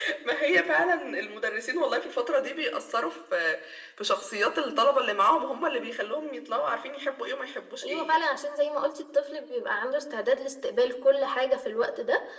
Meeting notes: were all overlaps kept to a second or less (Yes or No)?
Yes